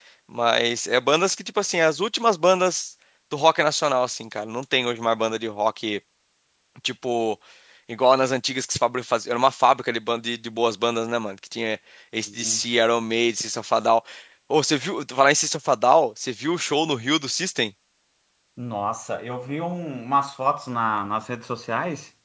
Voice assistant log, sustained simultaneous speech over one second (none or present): none